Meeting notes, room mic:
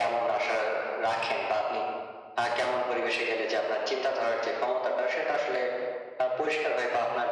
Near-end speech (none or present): none